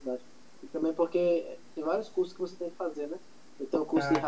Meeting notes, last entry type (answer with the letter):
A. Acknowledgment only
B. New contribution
A